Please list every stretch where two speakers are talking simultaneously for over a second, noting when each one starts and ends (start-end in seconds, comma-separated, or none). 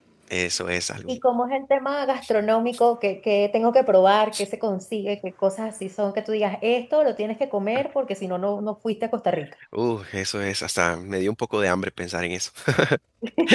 none